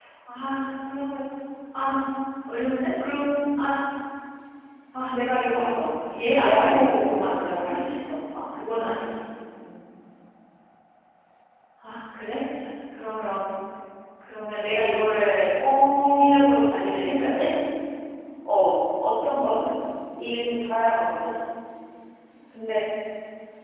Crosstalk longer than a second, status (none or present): present